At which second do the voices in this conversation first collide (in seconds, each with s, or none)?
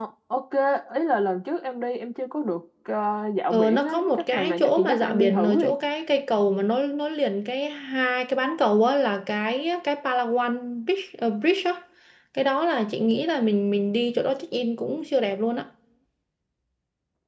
3.5 s